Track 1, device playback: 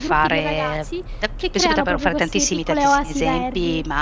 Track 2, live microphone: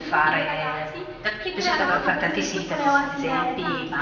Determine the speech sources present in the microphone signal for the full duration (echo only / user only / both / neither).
both